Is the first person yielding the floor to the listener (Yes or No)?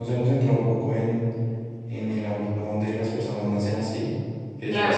Yes